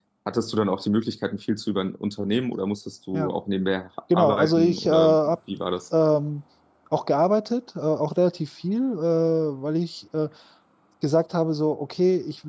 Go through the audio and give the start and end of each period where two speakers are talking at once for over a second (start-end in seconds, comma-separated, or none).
4.1-5.4